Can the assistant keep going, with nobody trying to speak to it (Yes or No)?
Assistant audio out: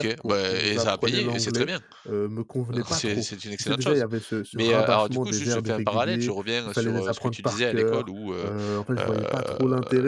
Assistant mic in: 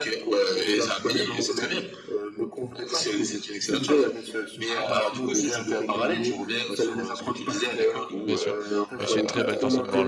No